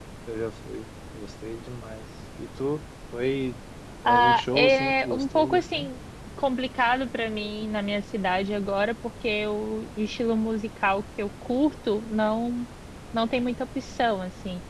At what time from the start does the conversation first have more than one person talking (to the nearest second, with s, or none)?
4 s